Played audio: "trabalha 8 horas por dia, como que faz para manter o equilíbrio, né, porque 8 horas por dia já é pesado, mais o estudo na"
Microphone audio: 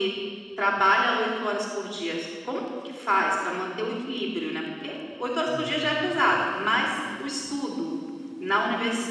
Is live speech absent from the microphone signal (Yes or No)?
No